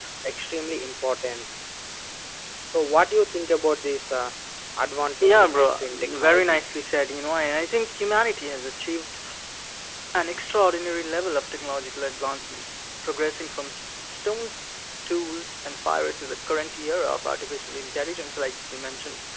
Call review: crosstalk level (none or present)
present